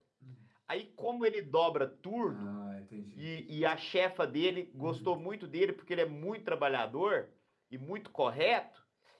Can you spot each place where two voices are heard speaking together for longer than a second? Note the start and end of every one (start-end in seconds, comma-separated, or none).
none